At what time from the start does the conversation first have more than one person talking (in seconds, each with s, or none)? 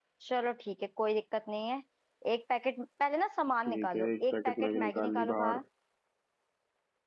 3.6 s